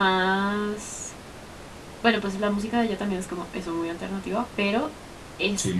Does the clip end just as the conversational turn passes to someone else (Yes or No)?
No